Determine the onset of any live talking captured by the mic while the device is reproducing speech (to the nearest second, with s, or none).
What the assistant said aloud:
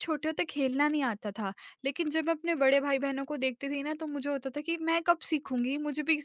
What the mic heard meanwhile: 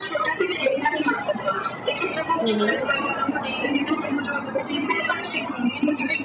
2 s